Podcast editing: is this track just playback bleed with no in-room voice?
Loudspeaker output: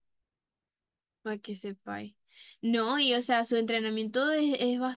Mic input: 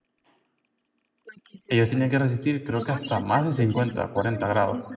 No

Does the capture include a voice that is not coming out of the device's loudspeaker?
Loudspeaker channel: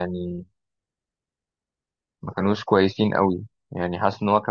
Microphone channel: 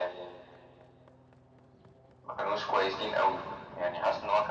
No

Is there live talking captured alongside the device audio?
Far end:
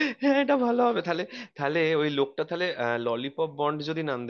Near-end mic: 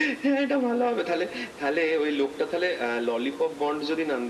No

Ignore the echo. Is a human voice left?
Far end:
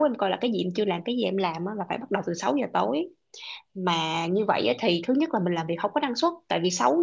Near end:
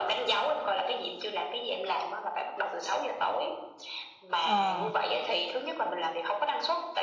Yes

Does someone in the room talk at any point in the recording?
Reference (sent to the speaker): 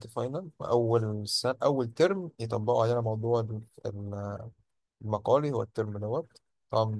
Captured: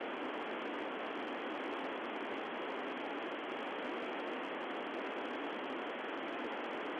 No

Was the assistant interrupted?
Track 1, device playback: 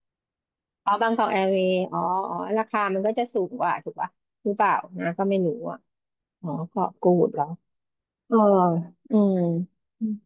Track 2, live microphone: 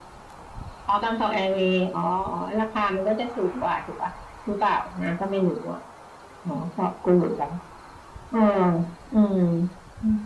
No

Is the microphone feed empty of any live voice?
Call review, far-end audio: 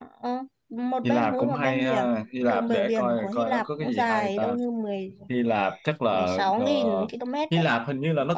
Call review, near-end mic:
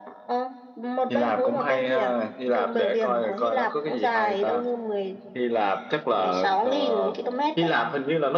Yes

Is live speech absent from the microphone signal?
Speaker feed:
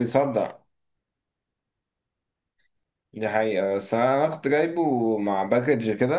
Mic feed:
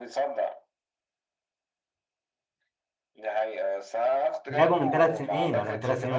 No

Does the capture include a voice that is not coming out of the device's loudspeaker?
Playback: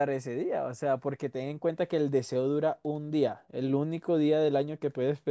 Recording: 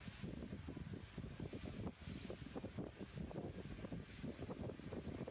No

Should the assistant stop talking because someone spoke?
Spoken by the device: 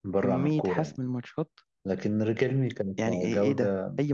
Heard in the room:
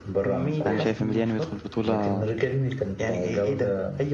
Yes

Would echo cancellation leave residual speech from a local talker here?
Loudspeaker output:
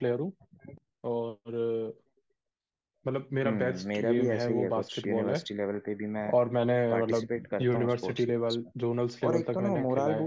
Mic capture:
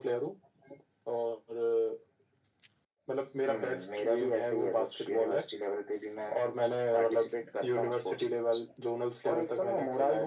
No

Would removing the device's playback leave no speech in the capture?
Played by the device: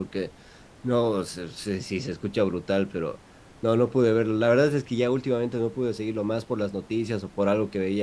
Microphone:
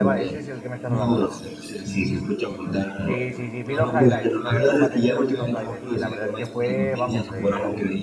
No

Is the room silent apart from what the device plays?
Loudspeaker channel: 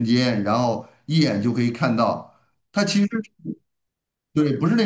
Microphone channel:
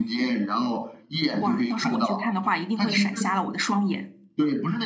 No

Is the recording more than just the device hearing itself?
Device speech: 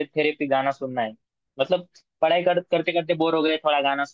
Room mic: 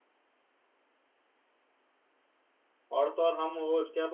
Yes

